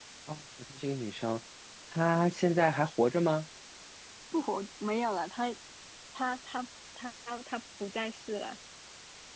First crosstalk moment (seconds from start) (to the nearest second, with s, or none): none